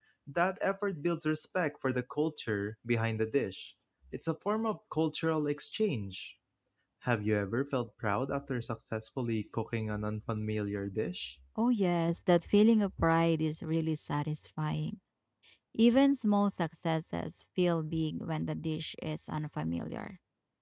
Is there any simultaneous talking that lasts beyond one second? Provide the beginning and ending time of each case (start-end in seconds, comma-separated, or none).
none